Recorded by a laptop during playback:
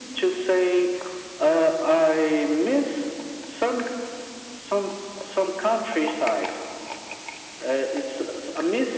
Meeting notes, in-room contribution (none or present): none